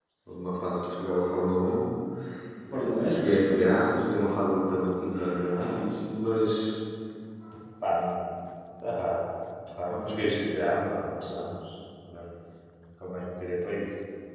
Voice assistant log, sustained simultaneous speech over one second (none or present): present